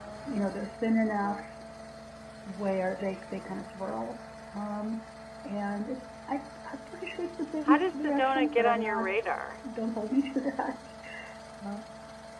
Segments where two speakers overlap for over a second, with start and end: 7.7-9.1

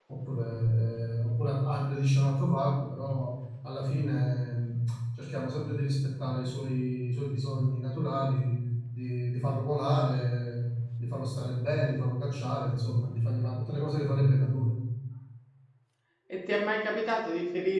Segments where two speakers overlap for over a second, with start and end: none

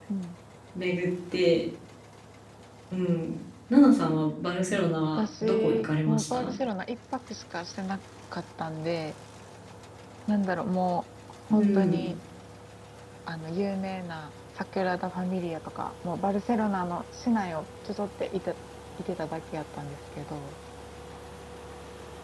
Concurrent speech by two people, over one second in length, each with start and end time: 5.2-6.5

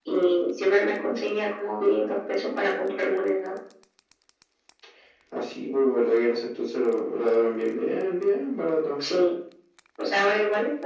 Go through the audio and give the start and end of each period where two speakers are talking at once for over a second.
none

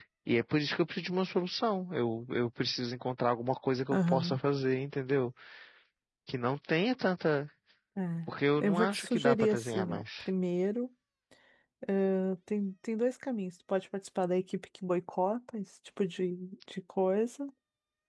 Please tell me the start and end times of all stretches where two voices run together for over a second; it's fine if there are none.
8.6-10.3

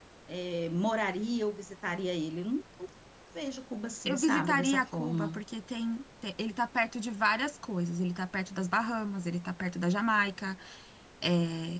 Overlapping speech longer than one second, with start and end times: 4.0-5.3

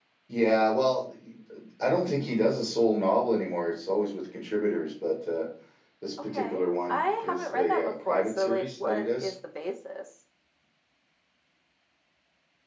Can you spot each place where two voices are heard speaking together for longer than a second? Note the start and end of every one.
6.2-9.3

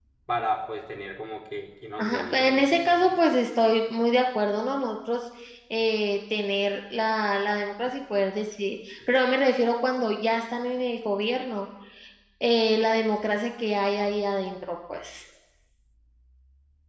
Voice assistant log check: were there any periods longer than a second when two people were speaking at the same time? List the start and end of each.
2.0-3.2

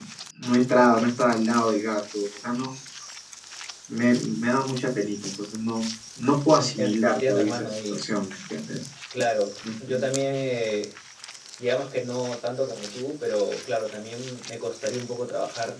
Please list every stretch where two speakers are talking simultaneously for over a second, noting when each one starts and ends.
6.6-8.0

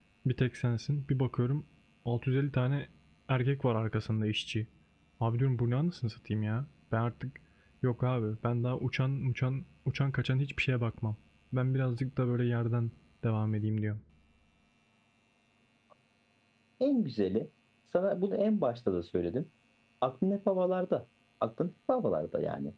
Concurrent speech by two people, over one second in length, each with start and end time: none

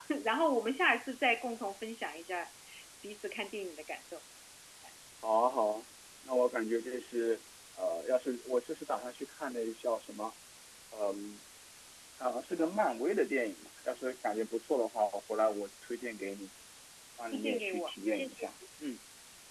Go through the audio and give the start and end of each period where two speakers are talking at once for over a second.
17.3-18.5

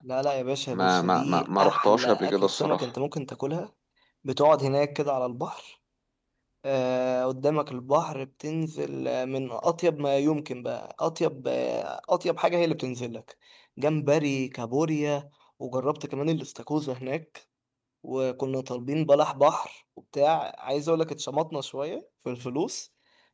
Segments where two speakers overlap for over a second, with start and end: 0.7-2.9

